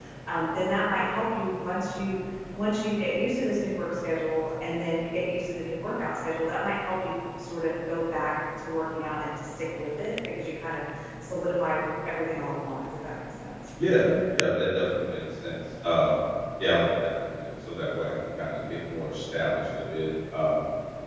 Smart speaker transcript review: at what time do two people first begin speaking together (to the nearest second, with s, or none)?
none